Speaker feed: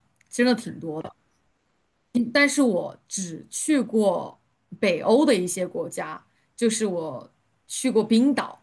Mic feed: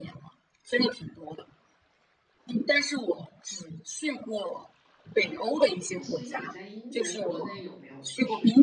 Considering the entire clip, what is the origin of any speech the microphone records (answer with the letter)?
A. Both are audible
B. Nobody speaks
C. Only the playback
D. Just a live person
A